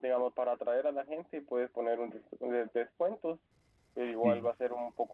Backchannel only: Yes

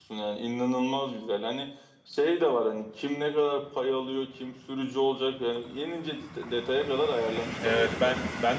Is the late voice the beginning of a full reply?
Yes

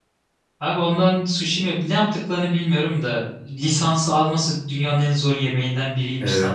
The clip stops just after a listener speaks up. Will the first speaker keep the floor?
No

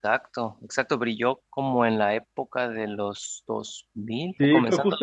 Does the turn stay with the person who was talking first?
No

